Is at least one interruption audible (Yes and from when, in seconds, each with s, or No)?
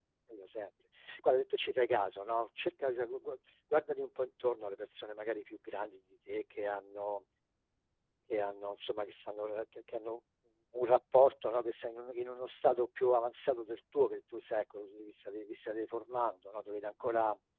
No